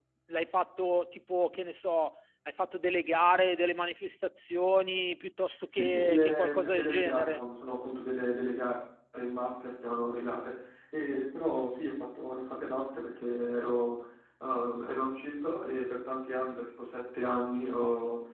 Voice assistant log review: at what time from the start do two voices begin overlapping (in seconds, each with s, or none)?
5.7 s